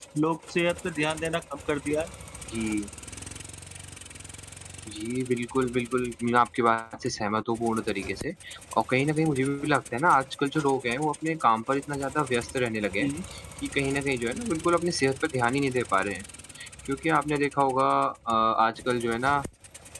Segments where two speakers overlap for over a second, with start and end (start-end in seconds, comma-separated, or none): none